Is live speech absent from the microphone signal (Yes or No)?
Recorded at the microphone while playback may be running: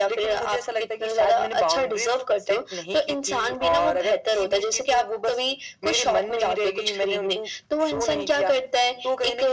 Yes